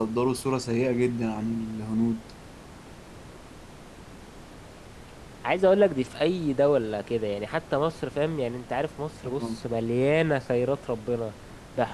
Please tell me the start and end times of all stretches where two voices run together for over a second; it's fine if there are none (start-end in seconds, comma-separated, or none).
none